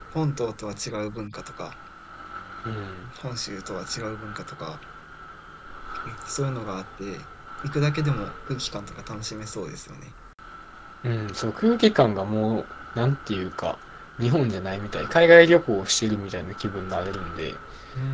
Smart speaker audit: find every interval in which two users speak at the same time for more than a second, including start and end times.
none

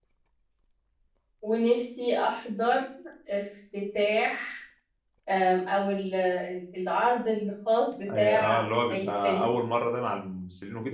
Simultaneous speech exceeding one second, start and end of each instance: 8.2-9.5

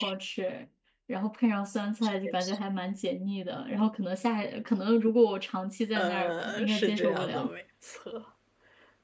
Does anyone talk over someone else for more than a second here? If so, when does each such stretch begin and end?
6.0-7.5

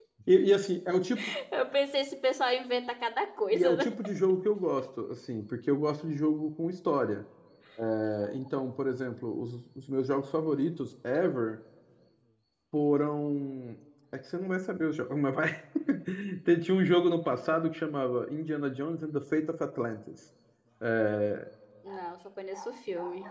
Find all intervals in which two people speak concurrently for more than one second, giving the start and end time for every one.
none

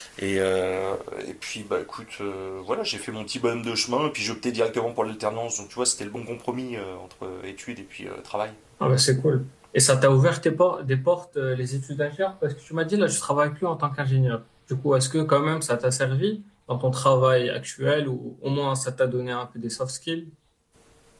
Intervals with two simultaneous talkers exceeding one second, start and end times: none

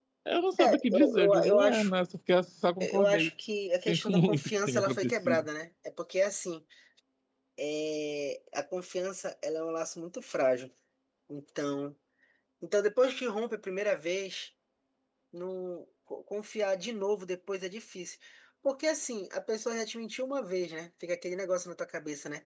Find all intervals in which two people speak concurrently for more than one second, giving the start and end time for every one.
0.6-1.9, 3.9-5.5

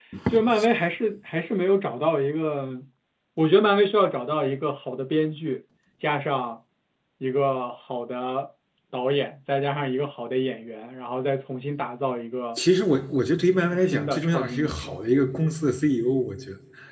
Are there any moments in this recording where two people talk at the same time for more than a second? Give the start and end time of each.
13.6-15.0

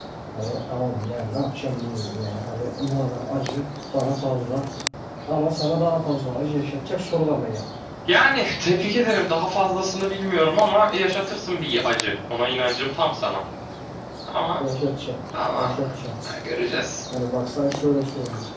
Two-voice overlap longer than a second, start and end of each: none

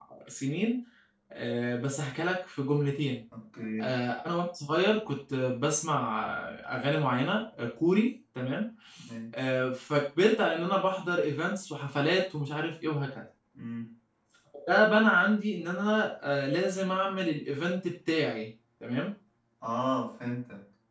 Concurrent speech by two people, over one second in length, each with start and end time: none

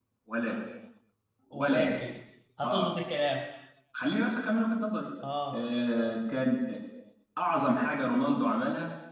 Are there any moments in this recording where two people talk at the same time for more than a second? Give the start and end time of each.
none

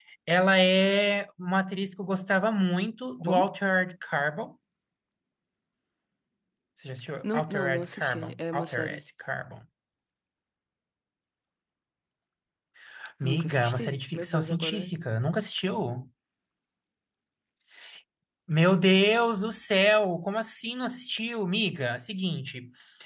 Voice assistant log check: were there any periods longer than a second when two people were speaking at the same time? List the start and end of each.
7.2-9.0, 13.2-14.9

